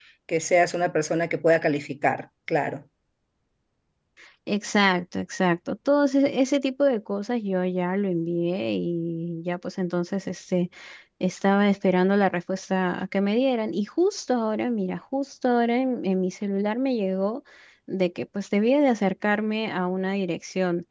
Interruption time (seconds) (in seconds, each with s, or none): none